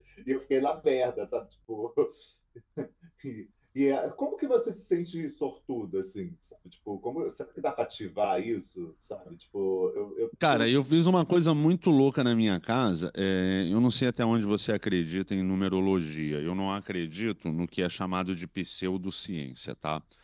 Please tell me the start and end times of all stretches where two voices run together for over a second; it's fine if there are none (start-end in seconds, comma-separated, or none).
none